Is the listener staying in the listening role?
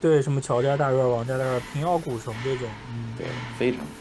No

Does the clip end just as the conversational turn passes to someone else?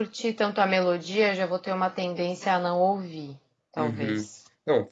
Yes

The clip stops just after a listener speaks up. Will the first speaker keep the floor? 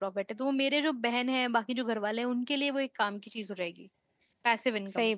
No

